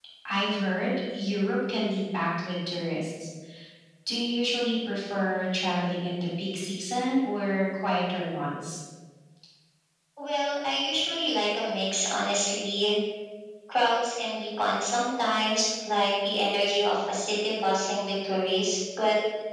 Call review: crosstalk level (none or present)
none